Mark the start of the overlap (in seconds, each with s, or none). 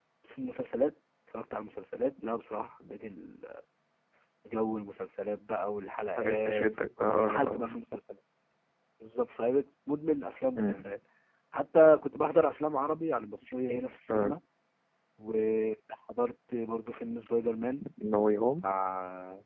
6.2 s